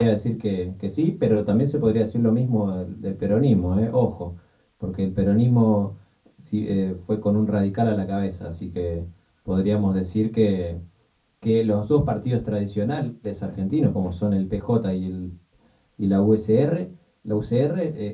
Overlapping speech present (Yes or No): No